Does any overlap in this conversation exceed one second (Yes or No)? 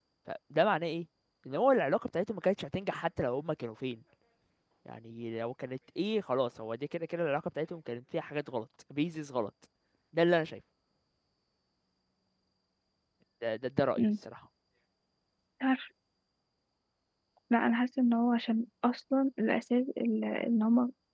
No